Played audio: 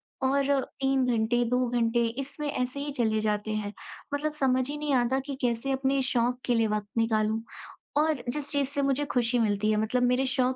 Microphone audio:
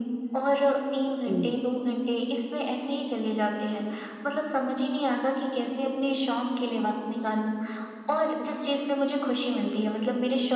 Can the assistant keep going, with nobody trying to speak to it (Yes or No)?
No